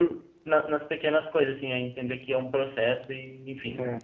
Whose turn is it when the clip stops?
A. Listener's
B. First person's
A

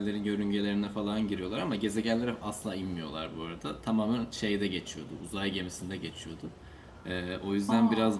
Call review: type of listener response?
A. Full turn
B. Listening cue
B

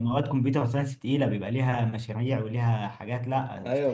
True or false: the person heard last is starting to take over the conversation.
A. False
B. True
B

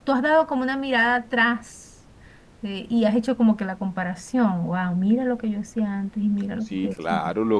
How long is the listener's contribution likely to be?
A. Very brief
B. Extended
B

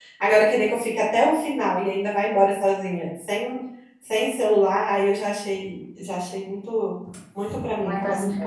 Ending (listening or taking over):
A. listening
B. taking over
B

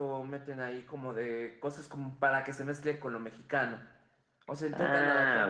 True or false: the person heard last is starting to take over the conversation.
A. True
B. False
A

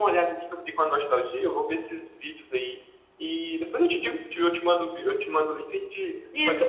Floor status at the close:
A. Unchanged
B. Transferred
B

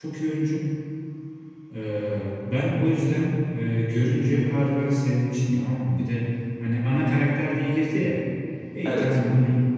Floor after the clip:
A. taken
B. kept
B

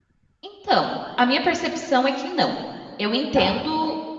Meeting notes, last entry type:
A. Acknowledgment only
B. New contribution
A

